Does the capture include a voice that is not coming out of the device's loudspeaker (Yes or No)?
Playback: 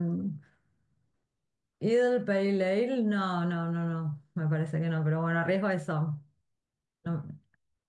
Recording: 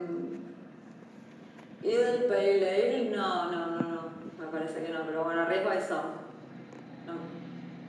No